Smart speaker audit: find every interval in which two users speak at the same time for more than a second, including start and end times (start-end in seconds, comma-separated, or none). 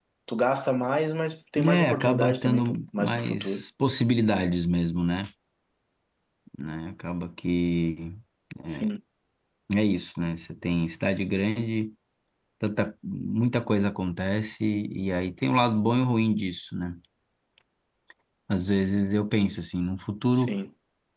1.6-3.6